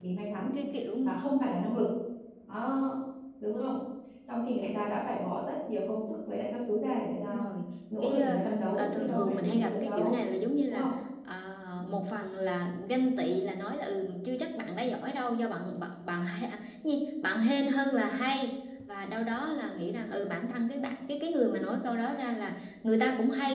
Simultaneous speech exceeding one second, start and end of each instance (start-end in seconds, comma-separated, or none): 8.0-10.2